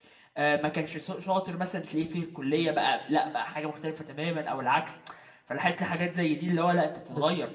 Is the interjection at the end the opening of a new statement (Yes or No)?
Yes